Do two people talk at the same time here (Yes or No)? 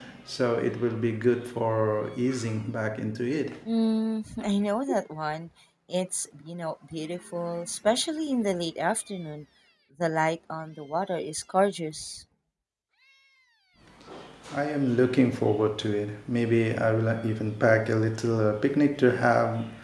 No